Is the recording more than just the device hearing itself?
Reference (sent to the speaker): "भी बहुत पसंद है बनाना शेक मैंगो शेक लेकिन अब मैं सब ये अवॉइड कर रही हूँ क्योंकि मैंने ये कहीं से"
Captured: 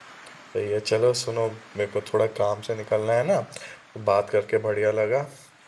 Yes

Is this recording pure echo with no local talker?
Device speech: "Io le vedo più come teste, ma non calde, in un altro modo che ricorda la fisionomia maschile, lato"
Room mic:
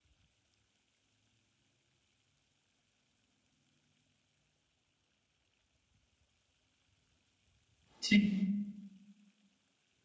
No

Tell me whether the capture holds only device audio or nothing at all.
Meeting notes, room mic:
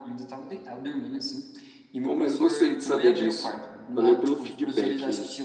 No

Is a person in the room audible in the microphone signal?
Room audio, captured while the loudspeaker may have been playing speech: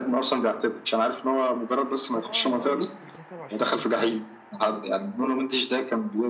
Yes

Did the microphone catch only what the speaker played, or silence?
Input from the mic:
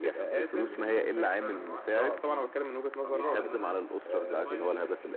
No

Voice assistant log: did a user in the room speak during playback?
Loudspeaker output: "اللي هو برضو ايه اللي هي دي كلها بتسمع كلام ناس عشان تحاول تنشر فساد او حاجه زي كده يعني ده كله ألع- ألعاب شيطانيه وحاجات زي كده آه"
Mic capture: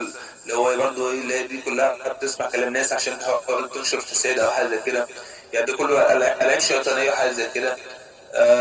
No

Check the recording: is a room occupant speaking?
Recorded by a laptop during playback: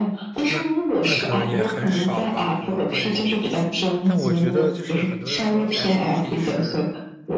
Yes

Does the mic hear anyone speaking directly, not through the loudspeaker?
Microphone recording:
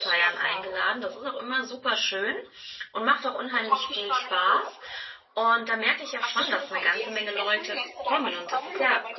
Yes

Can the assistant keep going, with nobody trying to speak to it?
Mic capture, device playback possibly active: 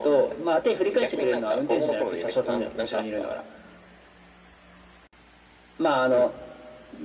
Yes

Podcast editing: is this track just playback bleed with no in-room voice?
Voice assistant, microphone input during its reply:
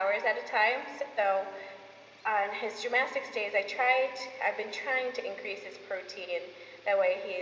Yes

